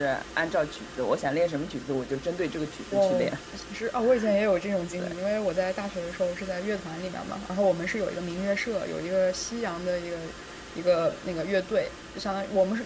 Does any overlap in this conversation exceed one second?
No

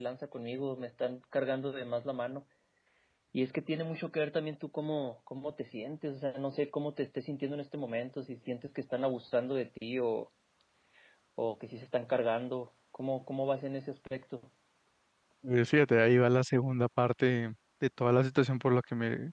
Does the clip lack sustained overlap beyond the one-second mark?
Yes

